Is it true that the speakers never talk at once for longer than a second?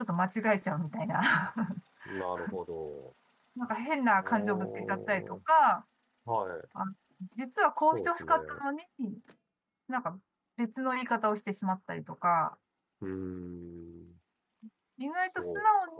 No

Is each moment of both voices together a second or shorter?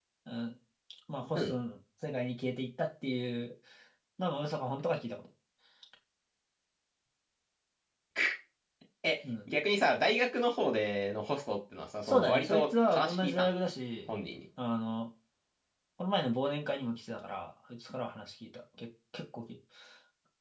No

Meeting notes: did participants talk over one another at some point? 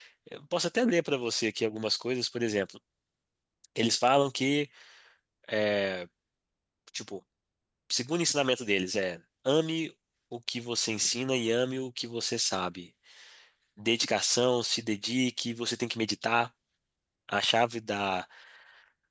No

